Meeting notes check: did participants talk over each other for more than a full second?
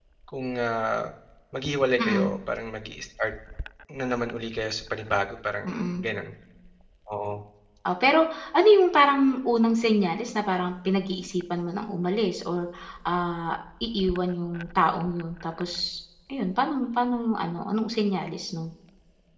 No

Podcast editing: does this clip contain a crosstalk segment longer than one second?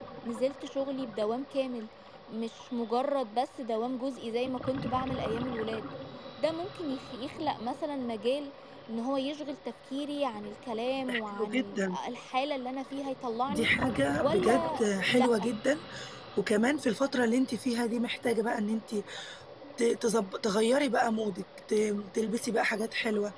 Yes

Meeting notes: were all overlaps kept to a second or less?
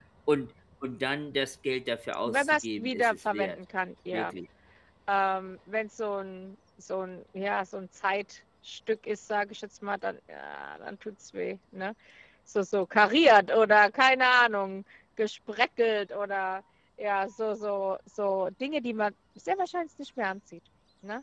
No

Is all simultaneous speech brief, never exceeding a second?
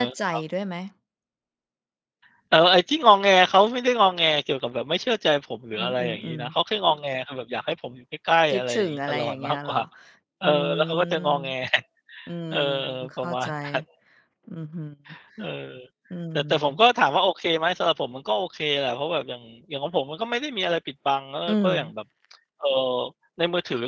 No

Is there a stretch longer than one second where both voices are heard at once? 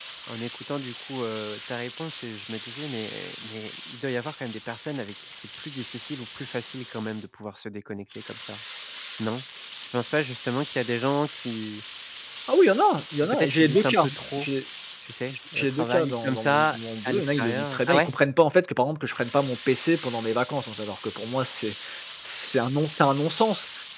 Yes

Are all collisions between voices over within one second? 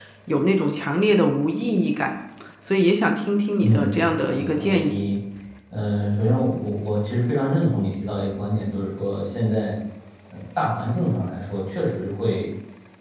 No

